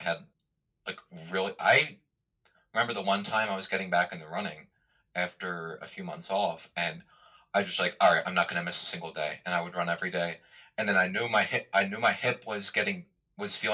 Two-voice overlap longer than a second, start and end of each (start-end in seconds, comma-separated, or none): none